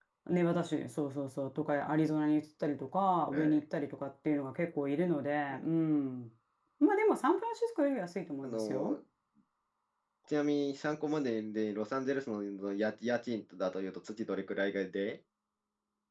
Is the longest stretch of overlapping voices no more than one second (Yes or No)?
Yes